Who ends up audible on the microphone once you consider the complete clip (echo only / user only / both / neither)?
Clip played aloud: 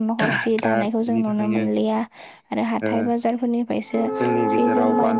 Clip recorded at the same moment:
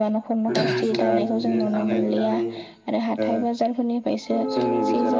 both